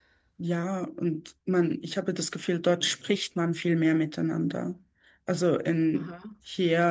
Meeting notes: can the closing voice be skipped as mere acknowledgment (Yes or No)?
Yes